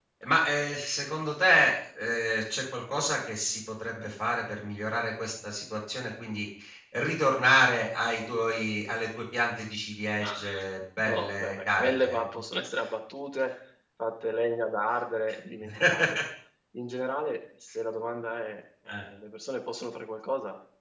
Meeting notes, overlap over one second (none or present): present